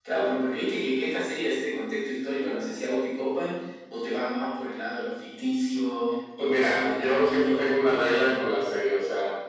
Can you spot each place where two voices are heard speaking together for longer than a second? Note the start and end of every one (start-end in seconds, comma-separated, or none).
6.4-8.3